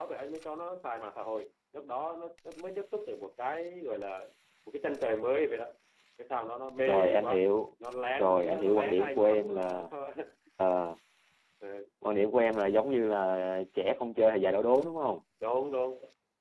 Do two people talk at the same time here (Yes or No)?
Yes